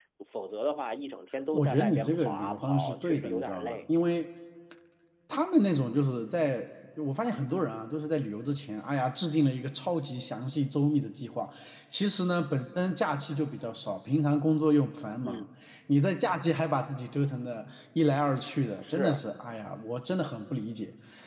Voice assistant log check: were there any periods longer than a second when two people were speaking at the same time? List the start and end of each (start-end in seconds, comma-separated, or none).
1.5-3.8